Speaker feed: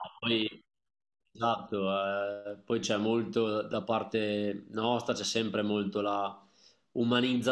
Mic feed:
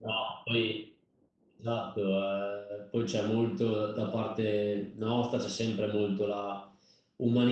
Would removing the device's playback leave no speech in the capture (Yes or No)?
Yes